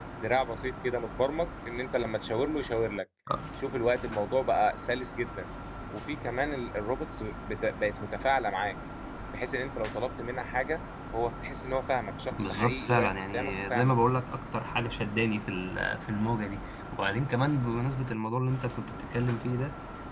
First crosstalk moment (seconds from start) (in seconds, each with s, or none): 12.3 s